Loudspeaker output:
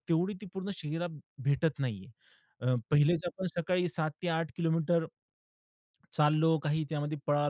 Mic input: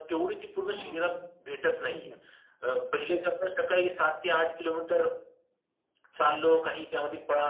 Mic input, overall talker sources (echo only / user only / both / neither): both